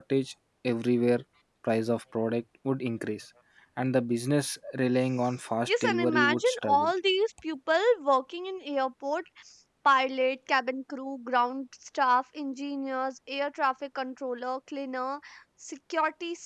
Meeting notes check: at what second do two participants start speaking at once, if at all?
6 s

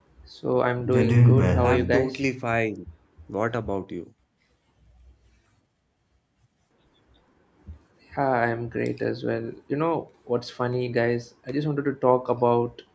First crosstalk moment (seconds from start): 1 s

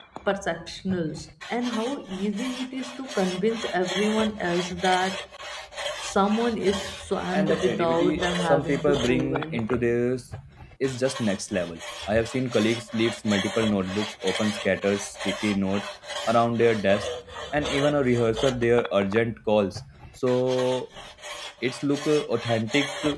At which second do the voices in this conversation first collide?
7 s

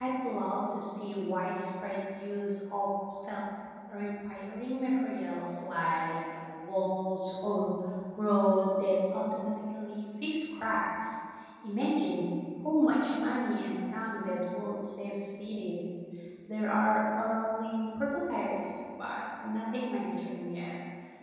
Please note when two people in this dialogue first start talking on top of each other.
none

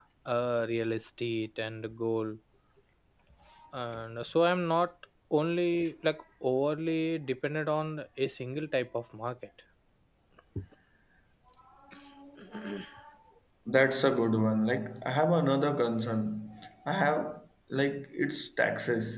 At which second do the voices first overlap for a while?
none

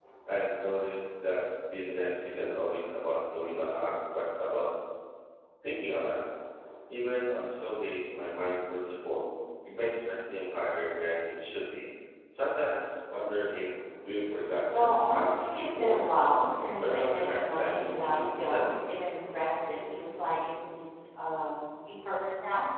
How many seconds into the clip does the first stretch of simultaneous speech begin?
15 s

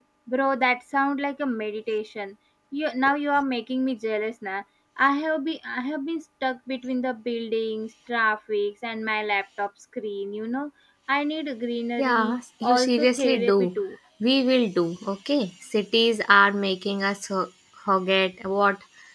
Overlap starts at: 12 s

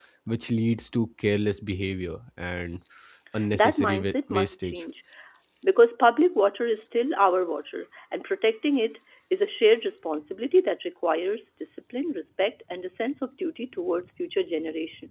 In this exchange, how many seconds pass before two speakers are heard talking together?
4 s

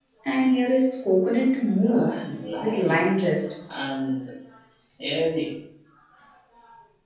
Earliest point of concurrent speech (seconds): 2 s

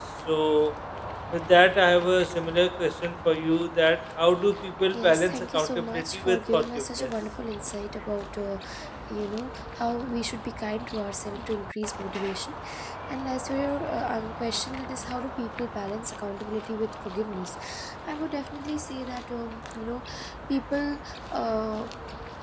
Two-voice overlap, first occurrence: 5 s

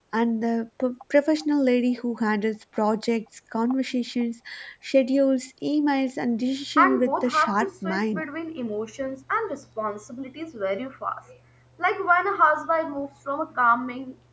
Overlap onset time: 7 s

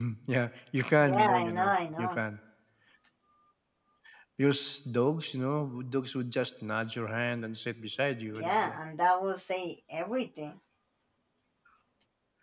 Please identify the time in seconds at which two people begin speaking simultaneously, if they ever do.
1 s

